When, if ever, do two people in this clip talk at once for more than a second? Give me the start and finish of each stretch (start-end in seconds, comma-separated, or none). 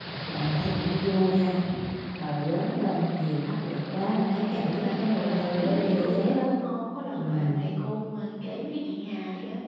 4.5-6.5